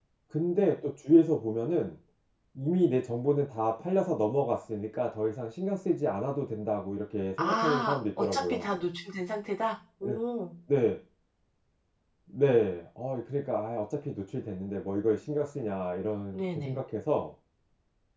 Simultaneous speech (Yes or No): Yes